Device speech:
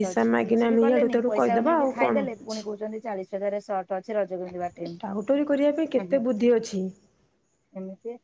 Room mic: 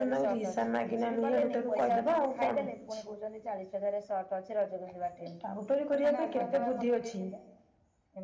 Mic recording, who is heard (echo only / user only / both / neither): both